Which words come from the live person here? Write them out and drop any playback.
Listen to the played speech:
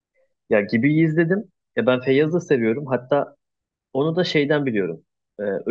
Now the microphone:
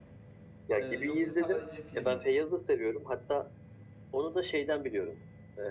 e, yoksa sadece film mi?

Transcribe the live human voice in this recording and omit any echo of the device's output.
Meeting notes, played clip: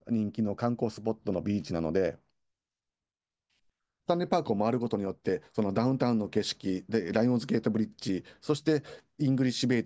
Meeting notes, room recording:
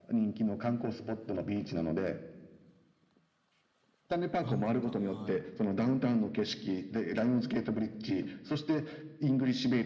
バンクーバー、はい。

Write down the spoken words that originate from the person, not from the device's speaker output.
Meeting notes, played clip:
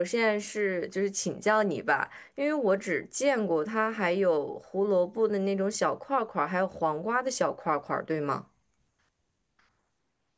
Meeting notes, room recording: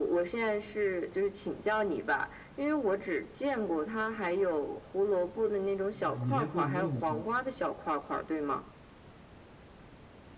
哇，你连过油肉都知道？

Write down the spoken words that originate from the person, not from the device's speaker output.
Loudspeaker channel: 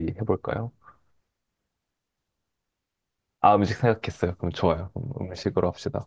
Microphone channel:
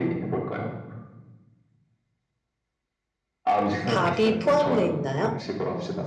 밥이 포함되어 있나요?

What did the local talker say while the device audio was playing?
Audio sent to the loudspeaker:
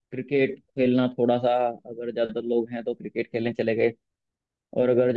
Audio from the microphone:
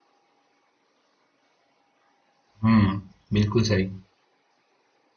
हम्म बिल्कुल सही

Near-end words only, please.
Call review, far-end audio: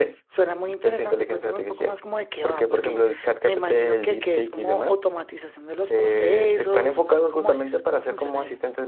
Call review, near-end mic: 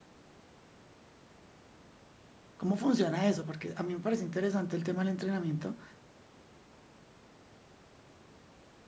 cómo funciona eso? Porque a mí me parece interesante el tema del entrenamiento

